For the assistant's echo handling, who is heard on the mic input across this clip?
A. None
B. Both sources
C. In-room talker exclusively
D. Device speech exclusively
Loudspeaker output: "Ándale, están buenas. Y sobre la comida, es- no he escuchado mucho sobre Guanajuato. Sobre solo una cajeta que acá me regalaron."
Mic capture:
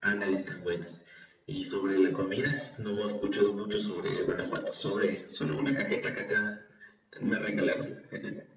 D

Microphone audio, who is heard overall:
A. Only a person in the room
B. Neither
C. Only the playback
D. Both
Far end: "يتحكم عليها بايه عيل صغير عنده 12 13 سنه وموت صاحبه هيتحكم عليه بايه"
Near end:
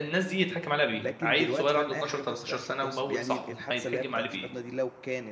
D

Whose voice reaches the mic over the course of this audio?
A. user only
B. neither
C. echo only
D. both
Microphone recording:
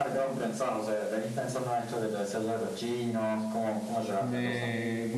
D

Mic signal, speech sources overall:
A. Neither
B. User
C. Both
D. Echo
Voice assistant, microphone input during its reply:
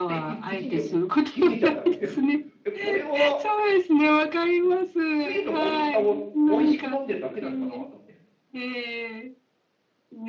C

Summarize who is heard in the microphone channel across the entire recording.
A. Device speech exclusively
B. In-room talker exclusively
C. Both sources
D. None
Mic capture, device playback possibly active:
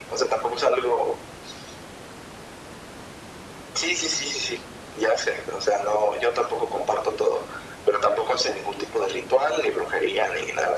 A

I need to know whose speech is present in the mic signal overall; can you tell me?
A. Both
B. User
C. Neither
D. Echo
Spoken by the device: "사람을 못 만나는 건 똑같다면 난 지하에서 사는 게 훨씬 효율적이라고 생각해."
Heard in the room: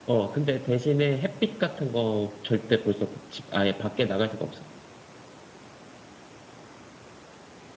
B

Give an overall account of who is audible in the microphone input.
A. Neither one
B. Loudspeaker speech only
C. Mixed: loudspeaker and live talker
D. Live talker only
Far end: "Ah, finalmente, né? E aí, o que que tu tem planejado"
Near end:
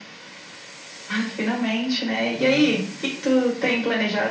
C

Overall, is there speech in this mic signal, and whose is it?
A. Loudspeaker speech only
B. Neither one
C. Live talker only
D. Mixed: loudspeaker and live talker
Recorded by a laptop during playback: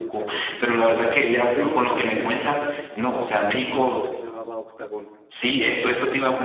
D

